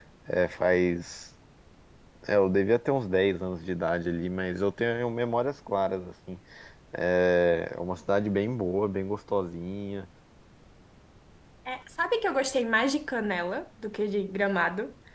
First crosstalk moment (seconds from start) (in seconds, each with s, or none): none